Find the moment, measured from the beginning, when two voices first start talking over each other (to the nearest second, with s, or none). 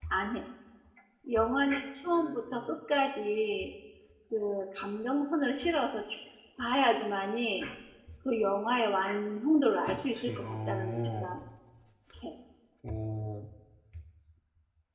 10 s